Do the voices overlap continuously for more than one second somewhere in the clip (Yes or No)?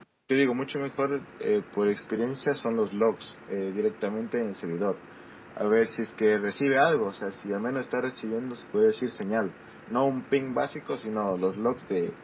No